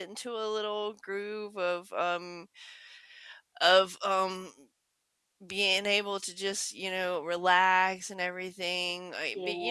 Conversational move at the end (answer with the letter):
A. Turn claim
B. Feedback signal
B